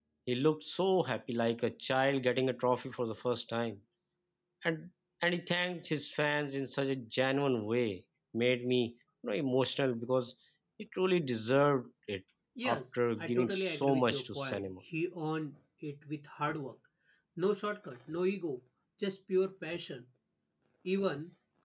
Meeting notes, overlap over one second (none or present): present